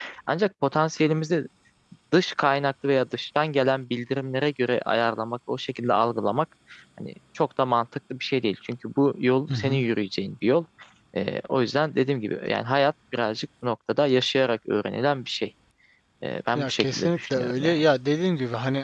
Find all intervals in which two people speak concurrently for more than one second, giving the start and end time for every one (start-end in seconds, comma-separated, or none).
16.6-17.8